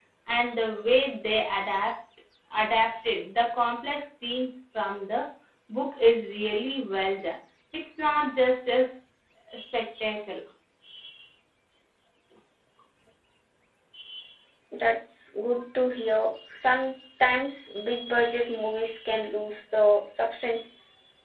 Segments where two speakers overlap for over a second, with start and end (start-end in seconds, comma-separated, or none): none